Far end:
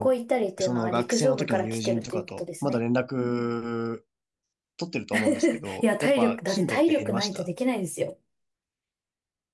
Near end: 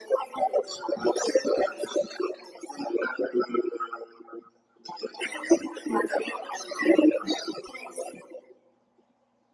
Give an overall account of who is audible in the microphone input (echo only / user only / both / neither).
echo only